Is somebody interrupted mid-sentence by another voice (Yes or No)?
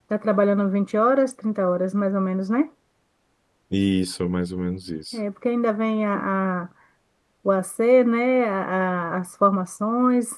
No